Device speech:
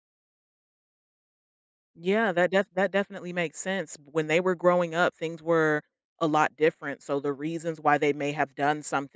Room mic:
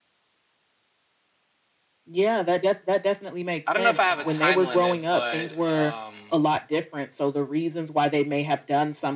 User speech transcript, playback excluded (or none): I don't know if I have a time limit, but um,